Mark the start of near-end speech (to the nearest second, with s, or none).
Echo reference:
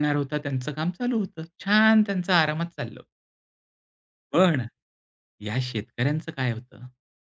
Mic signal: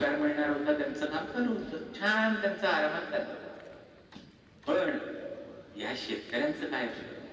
none